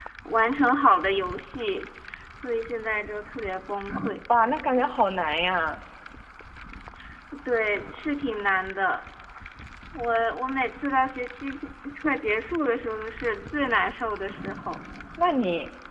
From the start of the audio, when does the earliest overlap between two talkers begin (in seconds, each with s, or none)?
none